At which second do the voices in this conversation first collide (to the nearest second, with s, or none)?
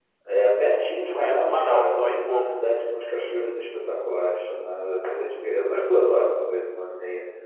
1 s